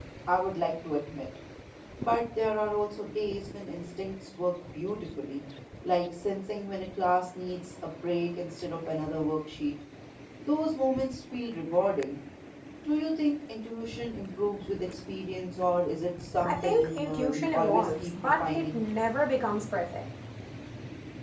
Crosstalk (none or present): present